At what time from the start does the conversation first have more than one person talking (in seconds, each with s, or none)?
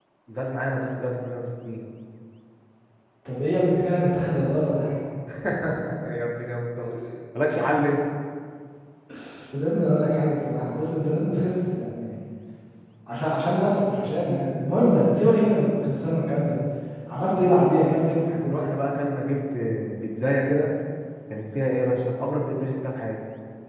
none